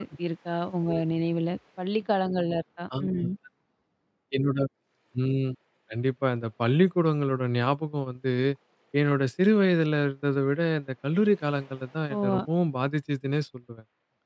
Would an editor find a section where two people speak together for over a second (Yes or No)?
No